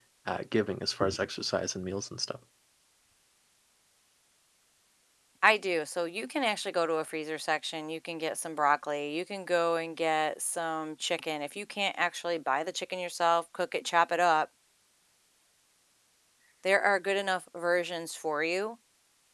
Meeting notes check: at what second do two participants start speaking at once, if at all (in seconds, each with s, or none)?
none